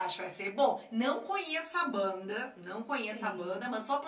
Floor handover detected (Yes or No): No